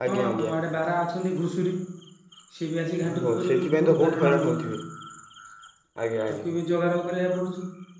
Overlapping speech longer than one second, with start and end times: 3.1-4.6

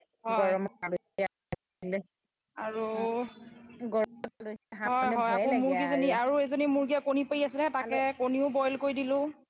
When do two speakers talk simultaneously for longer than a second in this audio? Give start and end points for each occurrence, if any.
4.8-6.1

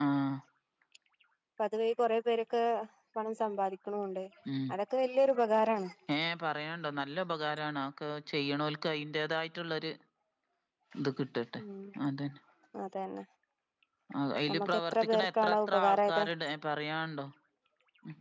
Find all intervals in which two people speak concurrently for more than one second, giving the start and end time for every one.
14.5-16.2

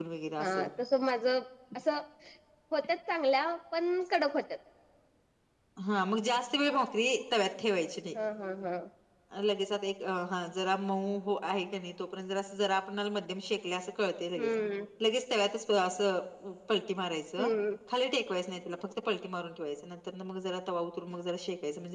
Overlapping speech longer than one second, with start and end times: none

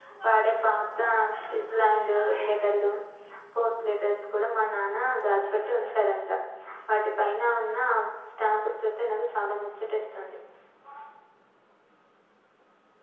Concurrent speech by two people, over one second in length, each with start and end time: none

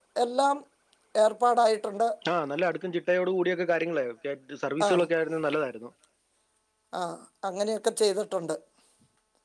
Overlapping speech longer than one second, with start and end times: none

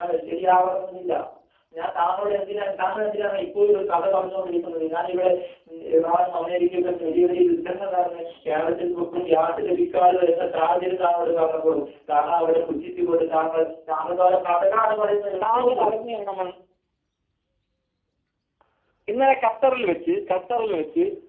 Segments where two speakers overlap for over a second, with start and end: none

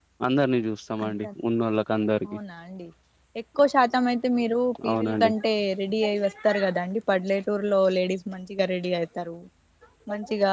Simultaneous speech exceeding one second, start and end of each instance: none

